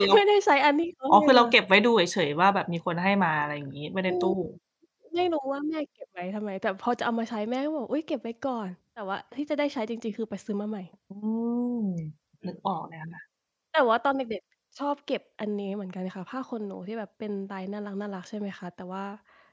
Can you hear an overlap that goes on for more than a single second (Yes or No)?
No